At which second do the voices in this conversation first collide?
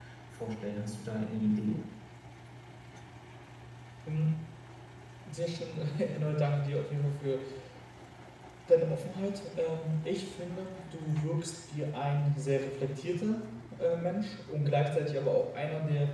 none

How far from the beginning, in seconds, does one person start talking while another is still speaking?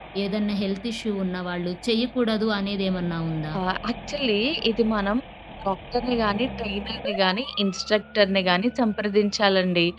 none

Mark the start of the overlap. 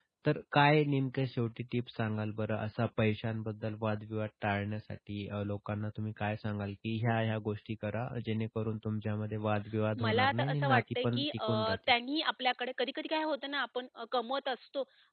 10.0 s

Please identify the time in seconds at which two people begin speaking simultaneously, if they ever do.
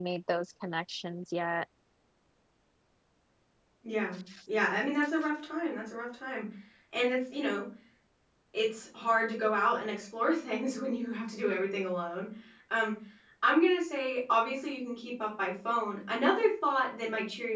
none

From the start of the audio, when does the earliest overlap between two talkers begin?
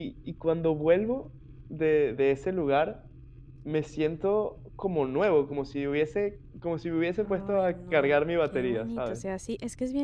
7.2 s

